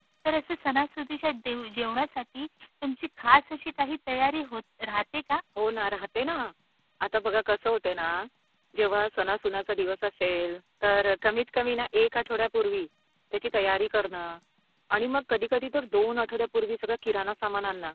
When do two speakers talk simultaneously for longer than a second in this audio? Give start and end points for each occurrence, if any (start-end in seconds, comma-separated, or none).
none